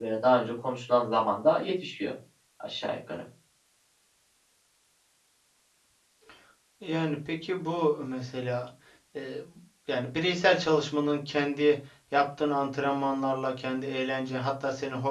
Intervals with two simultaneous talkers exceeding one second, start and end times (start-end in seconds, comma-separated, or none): none